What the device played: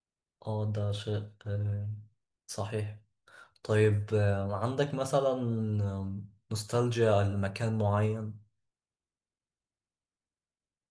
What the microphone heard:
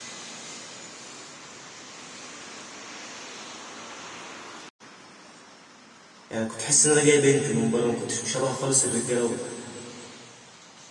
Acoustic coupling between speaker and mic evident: No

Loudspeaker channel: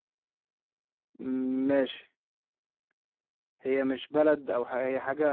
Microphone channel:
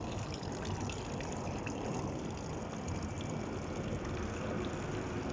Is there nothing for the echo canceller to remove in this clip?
Yes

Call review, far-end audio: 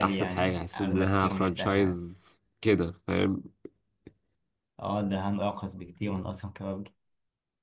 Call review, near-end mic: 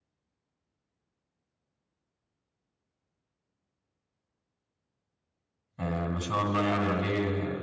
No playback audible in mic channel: Yes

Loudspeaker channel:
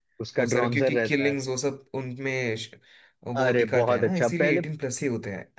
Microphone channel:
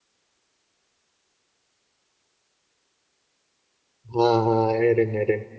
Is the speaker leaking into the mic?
No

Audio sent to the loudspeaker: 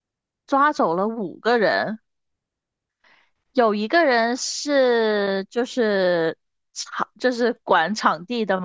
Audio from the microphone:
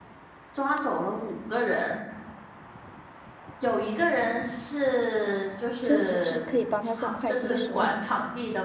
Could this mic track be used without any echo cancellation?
No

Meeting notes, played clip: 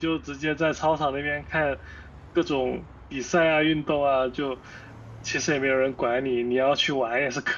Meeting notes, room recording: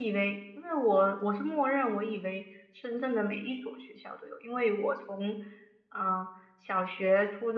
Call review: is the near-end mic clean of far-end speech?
Yes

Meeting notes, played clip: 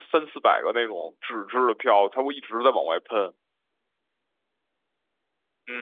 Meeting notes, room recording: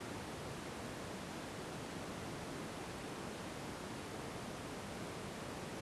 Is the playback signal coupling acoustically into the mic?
No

